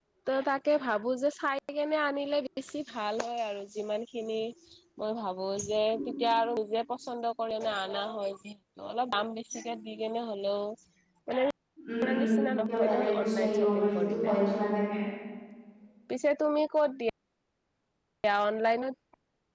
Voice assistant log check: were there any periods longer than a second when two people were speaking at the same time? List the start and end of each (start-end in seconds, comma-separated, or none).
12.8-14.3